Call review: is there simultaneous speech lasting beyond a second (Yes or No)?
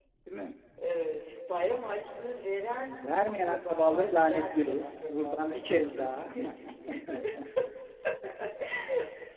Yes